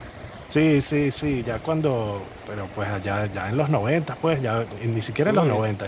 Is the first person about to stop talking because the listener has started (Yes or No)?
No